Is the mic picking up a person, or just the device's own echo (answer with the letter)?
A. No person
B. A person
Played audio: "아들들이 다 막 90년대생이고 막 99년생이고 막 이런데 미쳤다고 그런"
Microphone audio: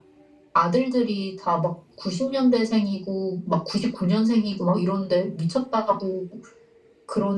A